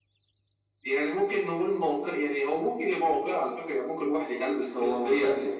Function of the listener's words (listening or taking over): taking over